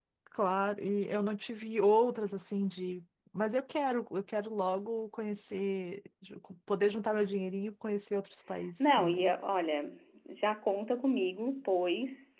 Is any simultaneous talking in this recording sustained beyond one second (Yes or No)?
No